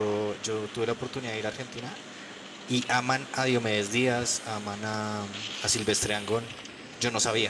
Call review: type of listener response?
taking over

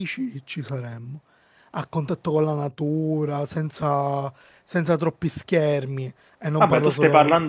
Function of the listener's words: taking over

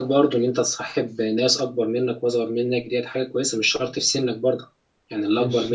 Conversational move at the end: taking over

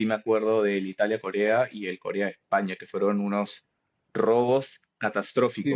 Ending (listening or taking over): taking over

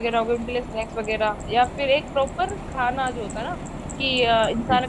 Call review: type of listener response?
listening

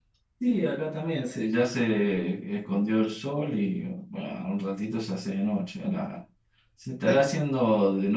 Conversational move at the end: listening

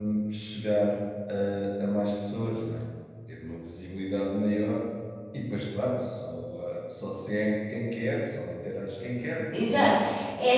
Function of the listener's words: taking over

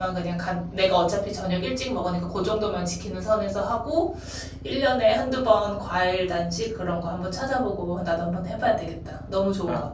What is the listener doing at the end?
taking over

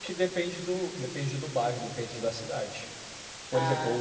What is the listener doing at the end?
listening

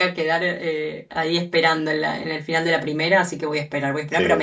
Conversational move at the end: listening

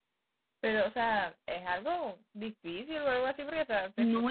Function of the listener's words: taking over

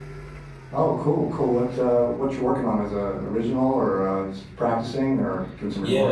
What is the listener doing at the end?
taking over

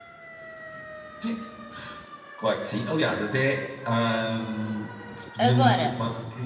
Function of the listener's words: listening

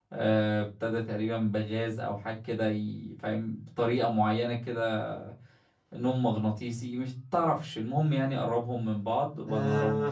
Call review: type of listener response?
taking over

